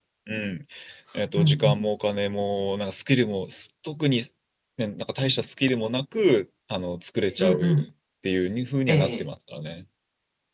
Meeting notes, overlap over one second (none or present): none